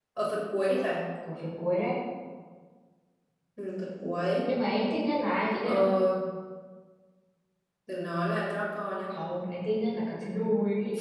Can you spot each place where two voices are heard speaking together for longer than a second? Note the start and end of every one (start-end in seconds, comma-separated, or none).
none